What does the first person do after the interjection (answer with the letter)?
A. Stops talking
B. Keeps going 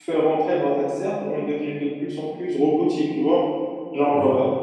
B